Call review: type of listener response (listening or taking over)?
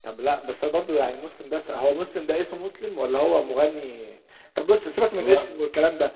listening